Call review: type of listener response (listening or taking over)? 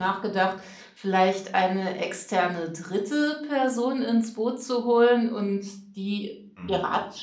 listening